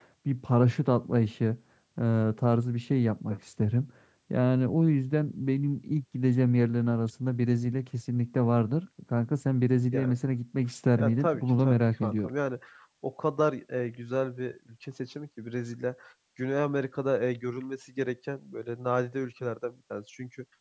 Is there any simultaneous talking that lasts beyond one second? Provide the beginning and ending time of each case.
11.0-12.3

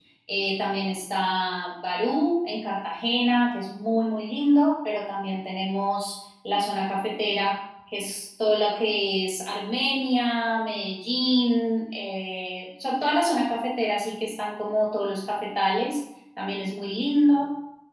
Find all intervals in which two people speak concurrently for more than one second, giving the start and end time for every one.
none

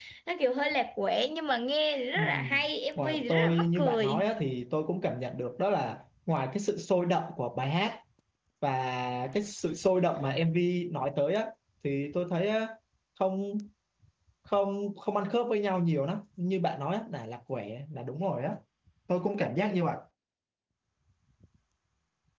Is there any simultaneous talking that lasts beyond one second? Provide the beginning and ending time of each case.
3.0-4.3

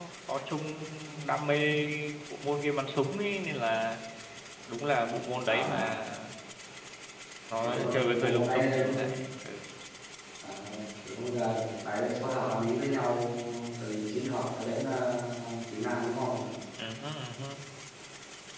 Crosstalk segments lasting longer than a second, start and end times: 7.6-9.0

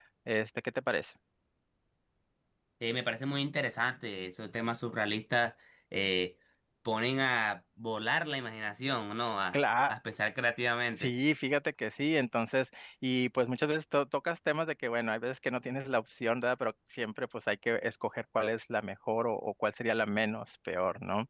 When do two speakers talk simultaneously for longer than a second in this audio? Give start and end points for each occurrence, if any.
none

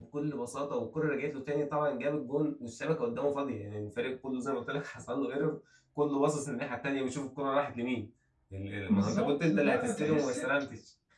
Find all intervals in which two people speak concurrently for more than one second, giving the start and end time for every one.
8.9-10.4

